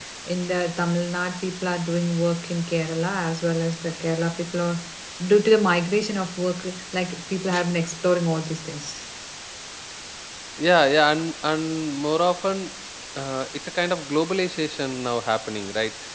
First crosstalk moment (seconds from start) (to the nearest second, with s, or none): none